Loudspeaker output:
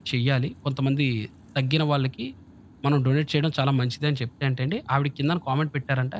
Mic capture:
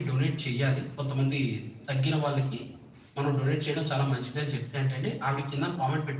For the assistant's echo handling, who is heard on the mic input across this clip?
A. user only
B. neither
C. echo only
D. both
C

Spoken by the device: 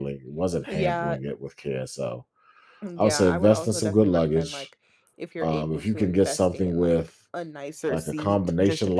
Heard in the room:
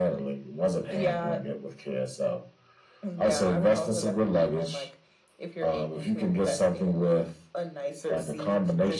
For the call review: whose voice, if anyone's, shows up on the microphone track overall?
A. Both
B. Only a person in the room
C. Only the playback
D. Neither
C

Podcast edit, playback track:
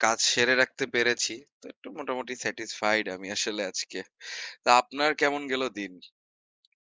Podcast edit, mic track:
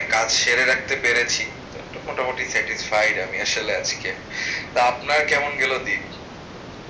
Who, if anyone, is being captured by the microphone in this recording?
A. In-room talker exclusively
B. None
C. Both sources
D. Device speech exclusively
D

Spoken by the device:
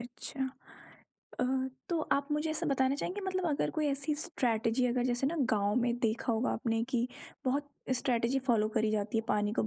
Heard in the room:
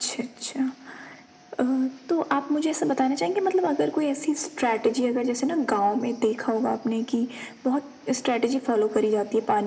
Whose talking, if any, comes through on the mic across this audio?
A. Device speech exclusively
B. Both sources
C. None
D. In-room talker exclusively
A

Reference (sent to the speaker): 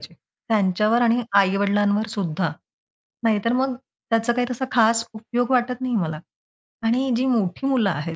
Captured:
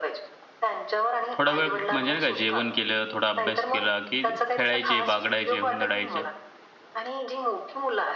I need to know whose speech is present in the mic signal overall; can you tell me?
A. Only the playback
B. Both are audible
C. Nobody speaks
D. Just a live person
B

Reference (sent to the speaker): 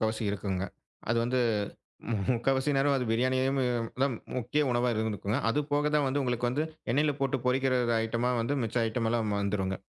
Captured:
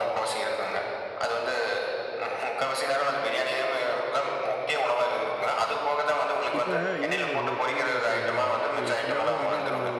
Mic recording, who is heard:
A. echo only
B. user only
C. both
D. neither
C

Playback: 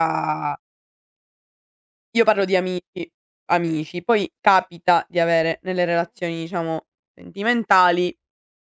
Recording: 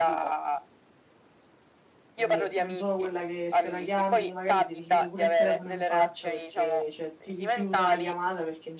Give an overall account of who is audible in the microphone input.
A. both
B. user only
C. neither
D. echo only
A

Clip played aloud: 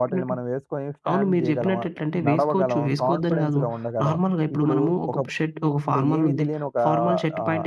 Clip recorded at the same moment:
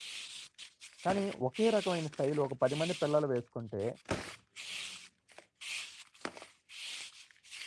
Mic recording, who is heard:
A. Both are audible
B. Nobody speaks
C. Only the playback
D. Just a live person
D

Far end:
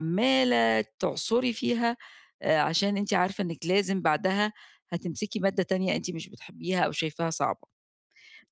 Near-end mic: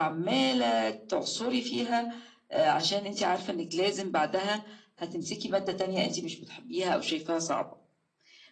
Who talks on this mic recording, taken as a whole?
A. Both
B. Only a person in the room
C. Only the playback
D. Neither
C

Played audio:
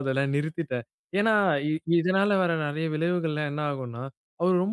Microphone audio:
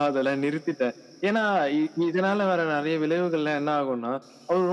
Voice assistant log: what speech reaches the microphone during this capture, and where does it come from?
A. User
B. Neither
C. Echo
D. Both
C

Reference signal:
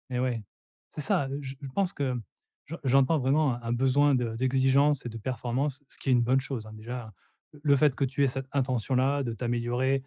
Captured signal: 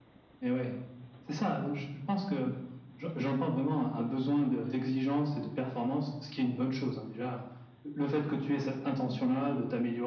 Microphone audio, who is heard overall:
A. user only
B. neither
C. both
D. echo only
D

